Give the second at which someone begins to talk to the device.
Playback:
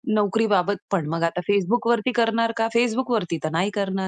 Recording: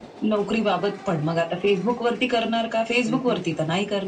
3.1 s

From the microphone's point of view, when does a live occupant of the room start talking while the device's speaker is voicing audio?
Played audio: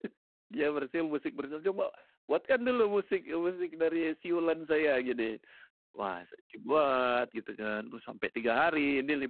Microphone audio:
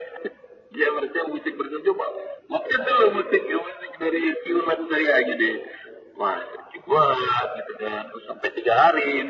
none

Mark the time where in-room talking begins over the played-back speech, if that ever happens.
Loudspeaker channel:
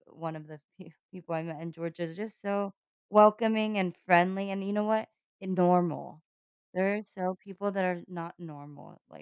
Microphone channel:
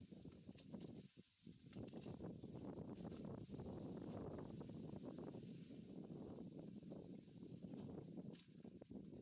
none

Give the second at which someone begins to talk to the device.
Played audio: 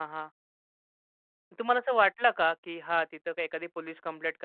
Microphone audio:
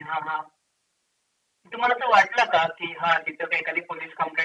none

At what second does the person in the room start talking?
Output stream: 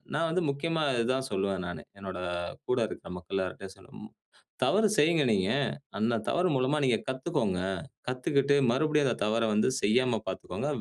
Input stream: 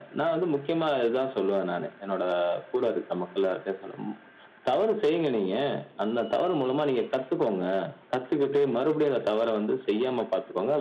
none

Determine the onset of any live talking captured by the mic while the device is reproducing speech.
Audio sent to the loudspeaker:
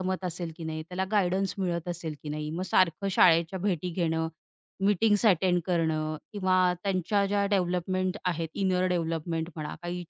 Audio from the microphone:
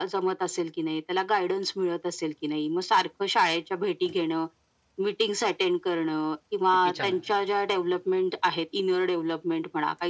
6.7 s

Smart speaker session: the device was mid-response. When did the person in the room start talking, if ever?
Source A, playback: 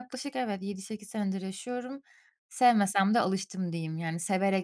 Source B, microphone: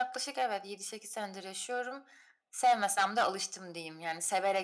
none

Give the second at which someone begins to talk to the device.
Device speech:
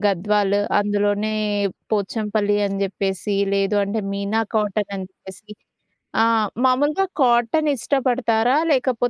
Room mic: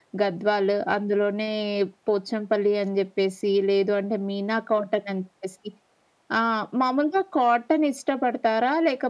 none

